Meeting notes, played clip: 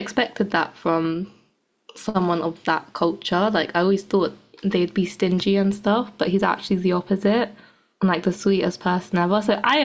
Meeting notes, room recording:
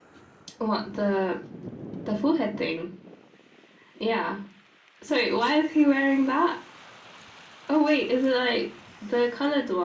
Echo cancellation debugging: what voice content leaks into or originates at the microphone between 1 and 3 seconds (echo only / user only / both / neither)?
user only